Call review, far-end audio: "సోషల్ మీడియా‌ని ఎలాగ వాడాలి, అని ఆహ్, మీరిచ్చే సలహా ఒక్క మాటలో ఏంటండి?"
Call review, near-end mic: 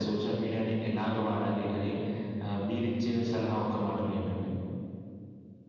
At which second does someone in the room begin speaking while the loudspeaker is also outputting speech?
none

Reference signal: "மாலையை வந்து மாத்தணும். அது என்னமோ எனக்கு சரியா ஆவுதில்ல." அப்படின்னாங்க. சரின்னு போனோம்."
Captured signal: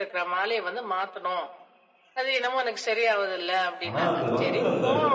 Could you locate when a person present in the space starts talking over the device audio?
3.9 s

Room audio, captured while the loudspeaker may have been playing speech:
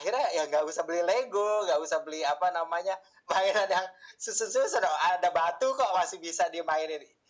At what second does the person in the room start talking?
none

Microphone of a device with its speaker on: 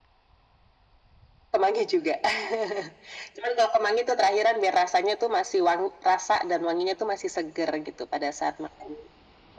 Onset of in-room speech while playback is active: none

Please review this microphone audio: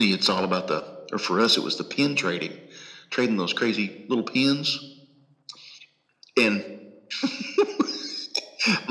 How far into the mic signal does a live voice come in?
none

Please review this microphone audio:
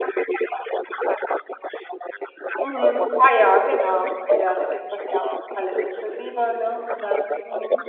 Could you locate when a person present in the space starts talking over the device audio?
2.6 s

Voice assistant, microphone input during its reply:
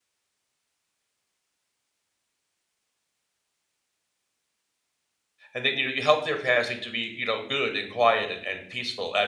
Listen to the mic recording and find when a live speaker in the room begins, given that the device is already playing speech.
5.5 s

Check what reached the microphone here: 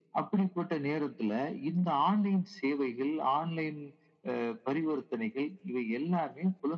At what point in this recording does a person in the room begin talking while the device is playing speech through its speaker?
none

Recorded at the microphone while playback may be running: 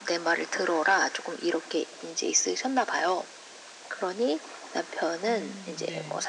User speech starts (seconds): 5.3 s

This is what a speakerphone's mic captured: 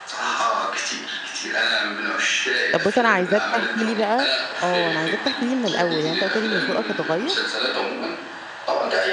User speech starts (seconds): 2.7 s

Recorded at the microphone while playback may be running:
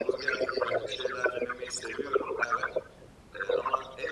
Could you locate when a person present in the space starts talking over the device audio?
0.6 s

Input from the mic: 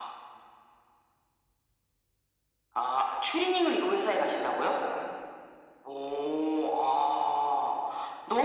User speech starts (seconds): none

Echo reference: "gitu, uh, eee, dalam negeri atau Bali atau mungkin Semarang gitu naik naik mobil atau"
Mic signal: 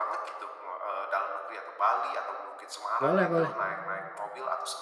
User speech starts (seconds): 3.0 s

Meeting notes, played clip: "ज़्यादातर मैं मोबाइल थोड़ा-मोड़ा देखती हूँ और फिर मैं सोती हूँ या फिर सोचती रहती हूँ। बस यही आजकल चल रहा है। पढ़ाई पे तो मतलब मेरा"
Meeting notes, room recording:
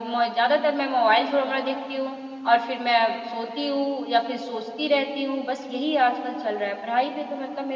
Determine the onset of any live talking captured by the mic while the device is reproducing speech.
none

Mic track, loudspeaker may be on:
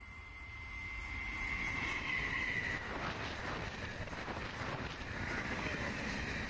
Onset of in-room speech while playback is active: none

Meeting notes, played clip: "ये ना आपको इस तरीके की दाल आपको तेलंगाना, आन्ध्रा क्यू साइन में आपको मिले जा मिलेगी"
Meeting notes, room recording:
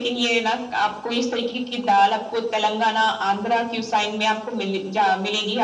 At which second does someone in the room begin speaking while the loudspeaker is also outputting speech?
none

